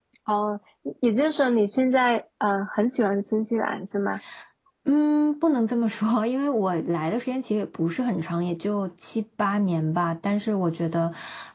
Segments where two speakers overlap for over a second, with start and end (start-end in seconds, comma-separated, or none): none